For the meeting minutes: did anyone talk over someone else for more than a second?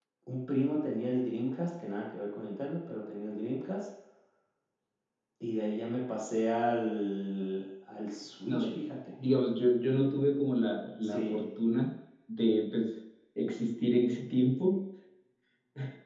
No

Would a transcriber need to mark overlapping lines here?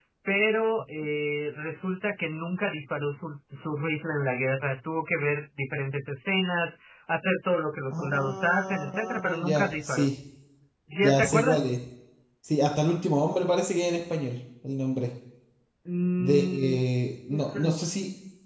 Yes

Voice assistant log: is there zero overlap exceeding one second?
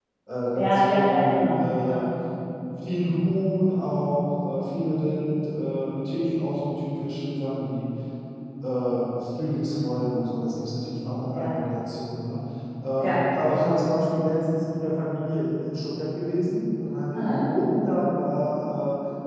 No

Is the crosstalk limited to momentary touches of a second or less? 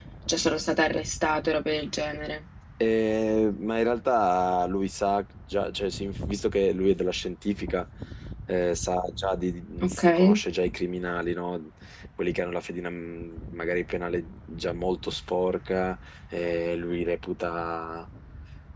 Yes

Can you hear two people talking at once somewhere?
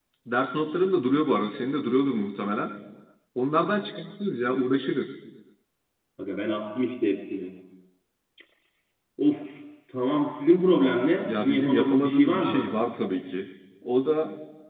Yes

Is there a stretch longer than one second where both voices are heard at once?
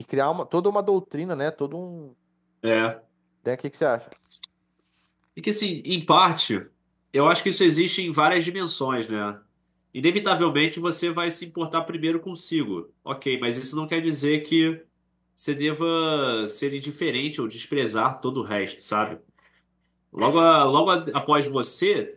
No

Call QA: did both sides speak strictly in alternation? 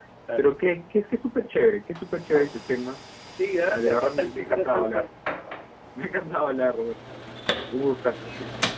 No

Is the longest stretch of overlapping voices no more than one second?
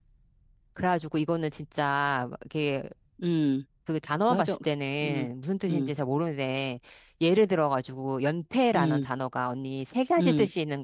Yes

